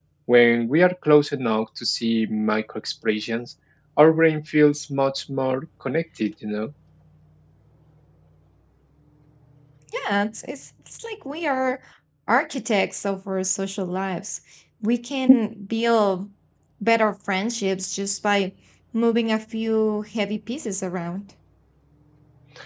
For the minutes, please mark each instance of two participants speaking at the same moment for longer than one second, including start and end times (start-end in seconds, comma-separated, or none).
none